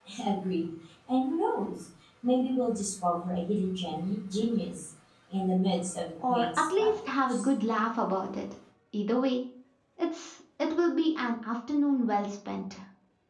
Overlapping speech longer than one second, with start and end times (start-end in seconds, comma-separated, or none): 6.3-7.5